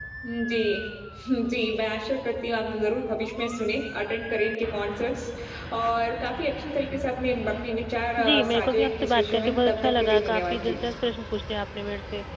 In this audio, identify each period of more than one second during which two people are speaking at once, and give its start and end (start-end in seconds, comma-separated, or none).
8.2-10.8